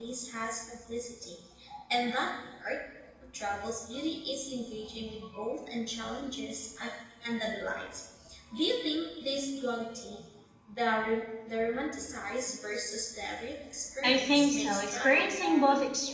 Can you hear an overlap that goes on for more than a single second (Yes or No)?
Yes